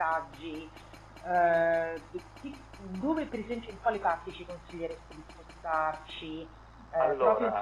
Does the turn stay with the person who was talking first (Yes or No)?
Yes